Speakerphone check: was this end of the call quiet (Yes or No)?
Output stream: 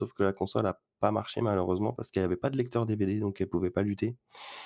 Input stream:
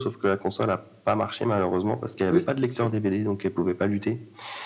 No